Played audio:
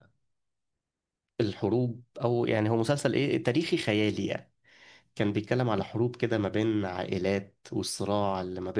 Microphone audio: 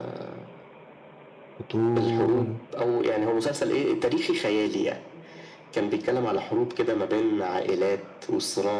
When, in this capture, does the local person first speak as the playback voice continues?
1.6 s

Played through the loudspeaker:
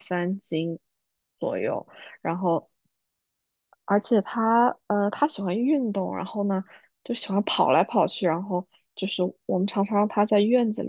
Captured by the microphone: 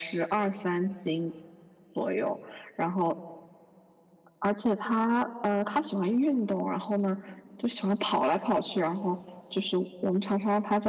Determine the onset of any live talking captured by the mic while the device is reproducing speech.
none

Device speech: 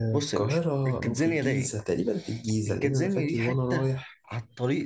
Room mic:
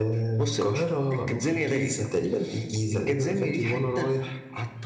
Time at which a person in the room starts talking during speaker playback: none

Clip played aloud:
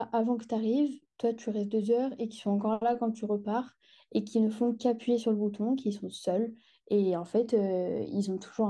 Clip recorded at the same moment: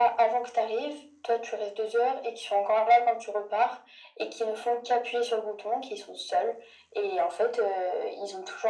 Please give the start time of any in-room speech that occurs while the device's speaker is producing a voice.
none

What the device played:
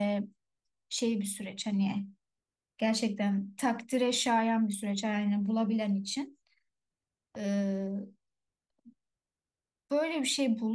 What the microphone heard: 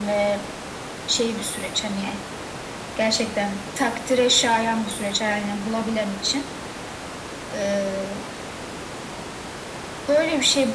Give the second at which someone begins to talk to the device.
none

